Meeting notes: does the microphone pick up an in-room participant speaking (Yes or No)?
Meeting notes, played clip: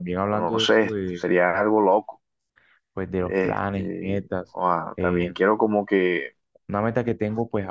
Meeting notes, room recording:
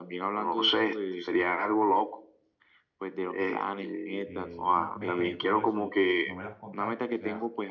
Yes